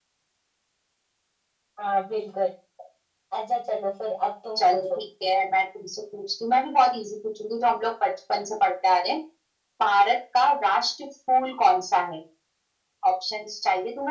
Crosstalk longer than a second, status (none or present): none